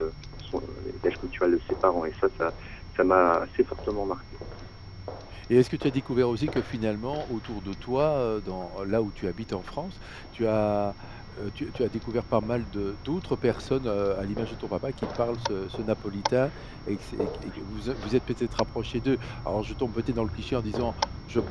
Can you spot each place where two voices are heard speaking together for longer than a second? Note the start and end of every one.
none

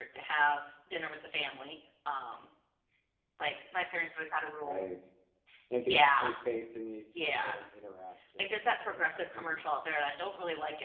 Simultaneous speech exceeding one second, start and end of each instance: 8.4-9.7

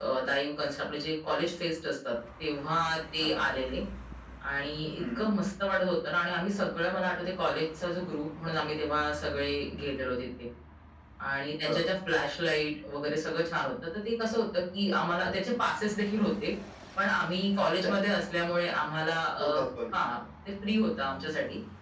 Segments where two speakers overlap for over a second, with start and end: none

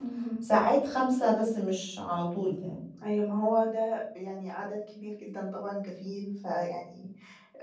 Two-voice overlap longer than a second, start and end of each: none

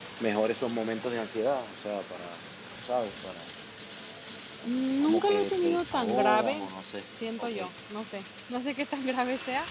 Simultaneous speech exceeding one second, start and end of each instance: 5.0-6.7

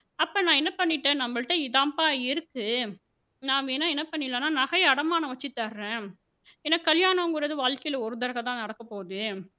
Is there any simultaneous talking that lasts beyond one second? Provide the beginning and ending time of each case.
none

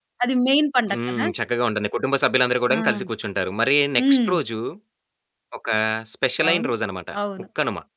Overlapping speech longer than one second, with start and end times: none

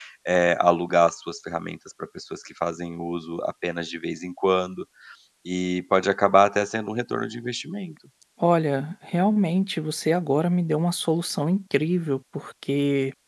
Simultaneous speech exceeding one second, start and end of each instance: none

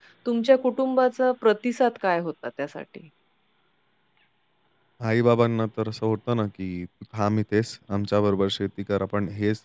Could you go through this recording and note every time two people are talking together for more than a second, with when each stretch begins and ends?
none

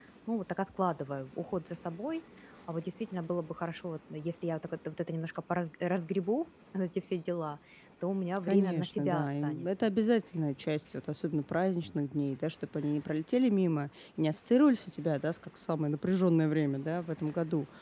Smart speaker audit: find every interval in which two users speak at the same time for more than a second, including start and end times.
8.5-9.9

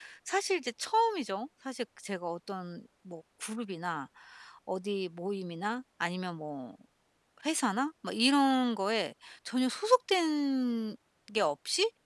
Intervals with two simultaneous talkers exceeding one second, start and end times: none

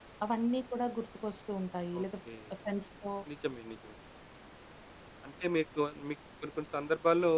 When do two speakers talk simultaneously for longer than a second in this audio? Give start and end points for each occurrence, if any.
none

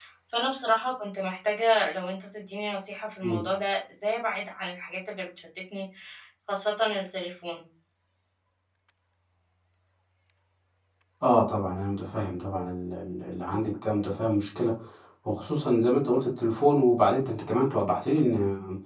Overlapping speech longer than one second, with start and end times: none

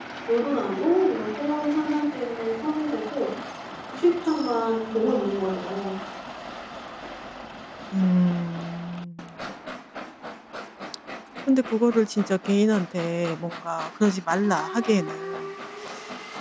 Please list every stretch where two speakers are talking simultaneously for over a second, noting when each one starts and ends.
none

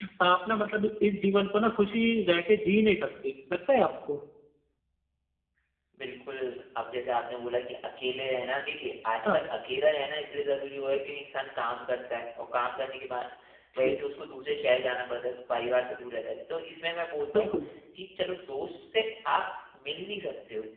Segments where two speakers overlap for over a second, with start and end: none

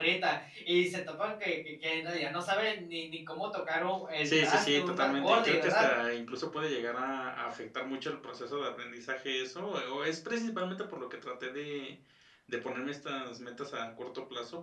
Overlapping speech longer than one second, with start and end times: 4.2-5.9

